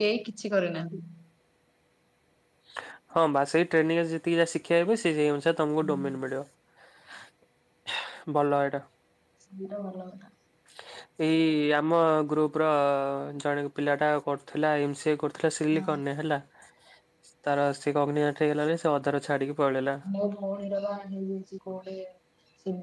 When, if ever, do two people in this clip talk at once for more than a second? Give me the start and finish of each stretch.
none

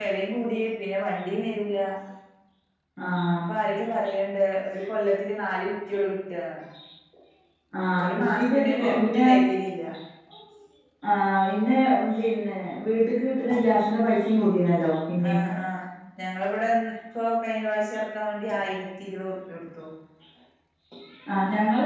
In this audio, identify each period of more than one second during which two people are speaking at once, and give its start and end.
8.0-9.2

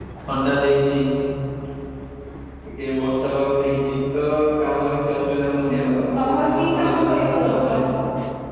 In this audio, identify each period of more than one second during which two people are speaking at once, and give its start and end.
5.7-7.7

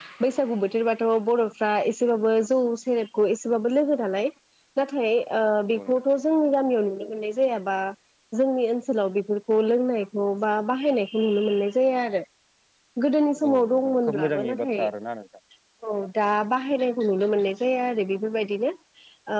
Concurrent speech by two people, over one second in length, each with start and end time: 13.5-14.8

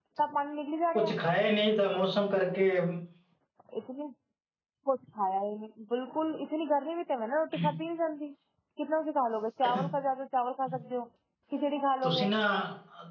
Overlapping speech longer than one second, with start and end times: none

